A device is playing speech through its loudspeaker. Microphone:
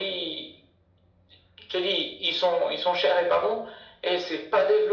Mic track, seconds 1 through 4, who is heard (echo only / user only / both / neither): echo only